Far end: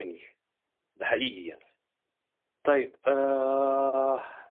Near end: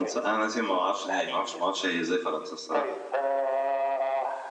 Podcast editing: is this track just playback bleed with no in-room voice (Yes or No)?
No